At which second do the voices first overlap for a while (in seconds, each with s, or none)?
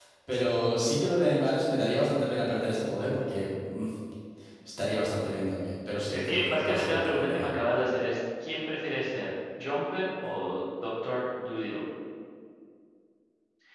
6.1 s